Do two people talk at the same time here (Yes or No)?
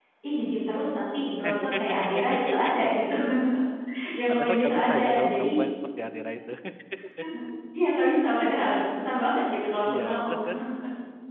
Yes